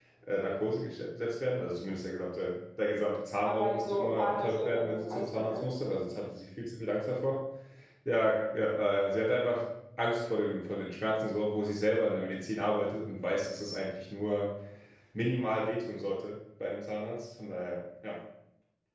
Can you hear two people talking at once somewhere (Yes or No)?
Yes